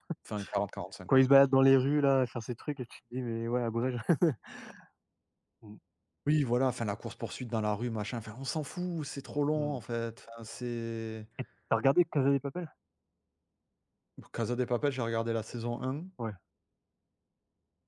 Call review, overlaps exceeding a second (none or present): none